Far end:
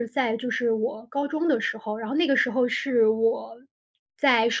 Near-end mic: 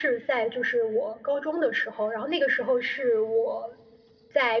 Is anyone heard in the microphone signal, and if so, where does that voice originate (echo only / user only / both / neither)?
echo only